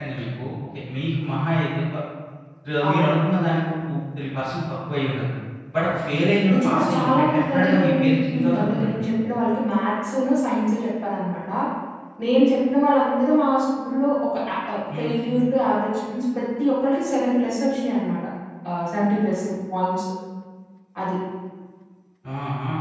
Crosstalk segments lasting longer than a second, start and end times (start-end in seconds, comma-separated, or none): 6.5-9.1